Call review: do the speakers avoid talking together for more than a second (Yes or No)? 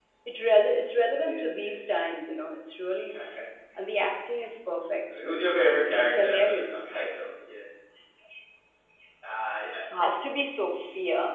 No